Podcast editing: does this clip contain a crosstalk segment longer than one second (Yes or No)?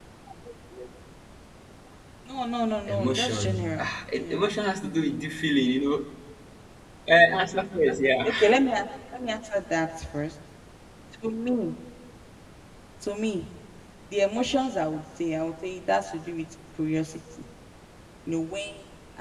Yes